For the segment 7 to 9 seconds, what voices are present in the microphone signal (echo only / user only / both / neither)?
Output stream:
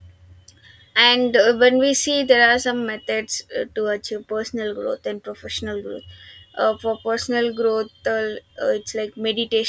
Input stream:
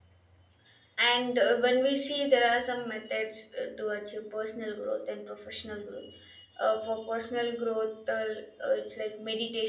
echo only